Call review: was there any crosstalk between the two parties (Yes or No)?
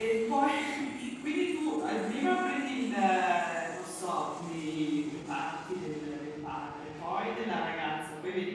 No